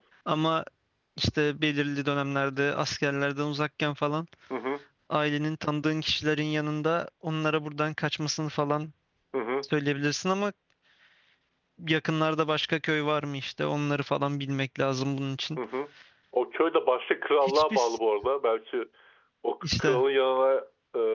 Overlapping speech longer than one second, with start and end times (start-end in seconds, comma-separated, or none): none